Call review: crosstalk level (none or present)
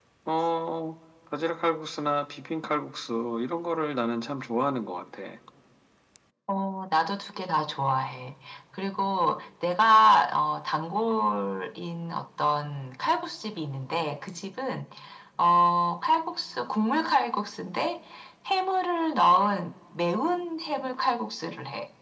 none